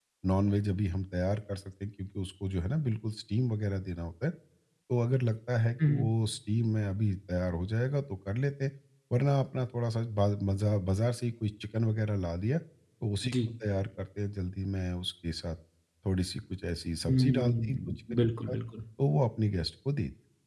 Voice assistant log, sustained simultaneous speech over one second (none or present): present